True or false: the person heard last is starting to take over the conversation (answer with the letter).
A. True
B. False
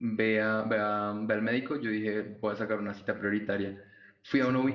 B